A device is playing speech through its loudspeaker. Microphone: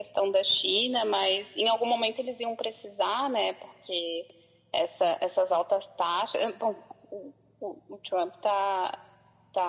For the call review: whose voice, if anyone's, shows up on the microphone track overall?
echo only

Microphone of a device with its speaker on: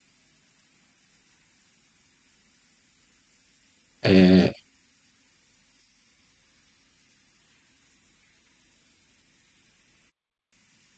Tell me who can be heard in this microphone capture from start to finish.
user only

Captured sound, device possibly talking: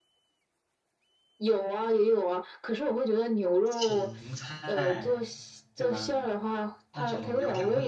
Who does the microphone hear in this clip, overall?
both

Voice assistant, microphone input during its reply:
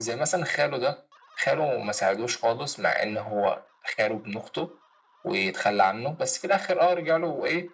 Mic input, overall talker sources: echo only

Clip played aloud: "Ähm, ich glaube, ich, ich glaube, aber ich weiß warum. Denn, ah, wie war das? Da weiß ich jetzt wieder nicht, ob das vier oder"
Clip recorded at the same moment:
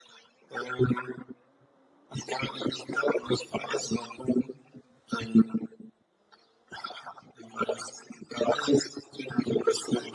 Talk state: echo only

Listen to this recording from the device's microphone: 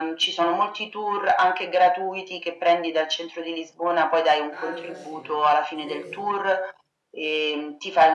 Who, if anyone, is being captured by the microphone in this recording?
both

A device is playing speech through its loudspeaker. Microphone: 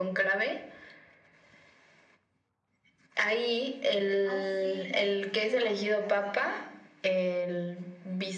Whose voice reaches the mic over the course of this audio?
both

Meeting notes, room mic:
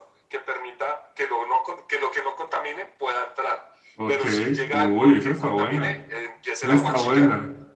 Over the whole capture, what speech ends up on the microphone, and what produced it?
both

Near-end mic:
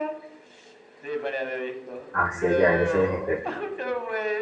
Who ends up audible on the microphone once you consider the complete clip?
both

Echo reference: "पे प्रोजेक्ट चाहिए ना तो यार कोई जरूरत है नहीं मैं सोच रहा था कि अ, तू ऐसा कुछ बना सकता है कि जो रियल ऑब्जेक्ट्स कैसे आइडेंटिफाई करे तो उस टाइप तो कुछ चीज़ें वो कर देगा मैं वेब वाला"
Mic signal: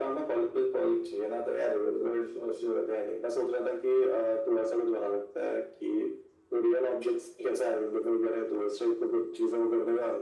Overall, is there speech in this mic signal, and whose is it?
echo only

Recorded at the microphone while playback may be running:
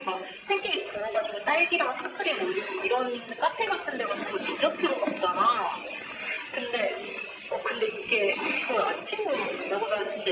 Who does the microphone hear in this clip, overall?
echo only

